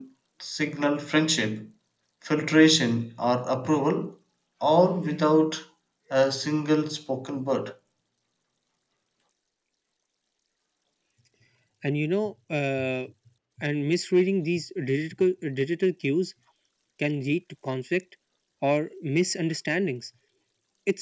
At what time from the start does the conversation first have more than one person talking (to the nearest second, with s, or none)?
none